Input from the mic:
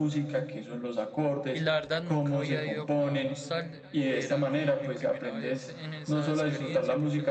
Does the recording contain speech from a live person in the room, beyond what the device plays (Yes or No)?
Yes